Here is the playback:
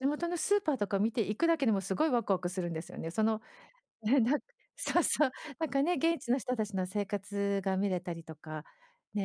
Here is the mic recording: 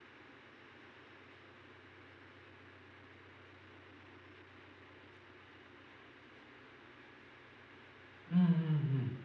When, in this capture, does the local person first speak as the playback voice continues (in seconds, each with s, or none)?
8.3 s